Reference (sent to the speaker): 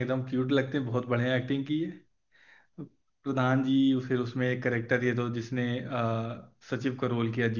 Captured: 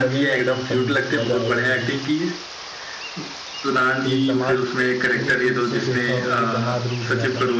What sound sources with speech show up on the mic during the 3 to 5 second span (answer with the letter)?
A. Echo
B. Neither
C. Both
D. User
C